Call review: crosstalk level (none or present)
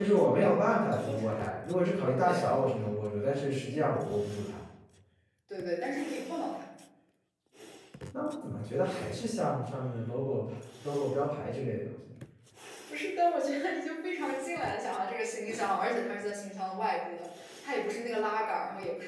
present